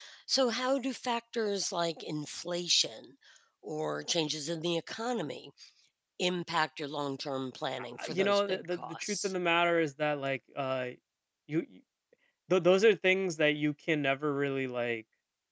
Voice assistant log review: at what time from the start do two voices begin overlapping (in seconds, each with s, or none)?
8.0 s